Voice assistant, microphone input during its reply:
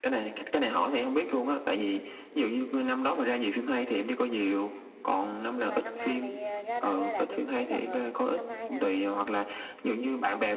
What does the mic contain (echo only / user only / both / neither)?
both